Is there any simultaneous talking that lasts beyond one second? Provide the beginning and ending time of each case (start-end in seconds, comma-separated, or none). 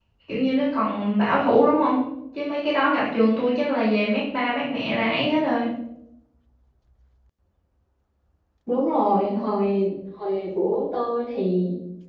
none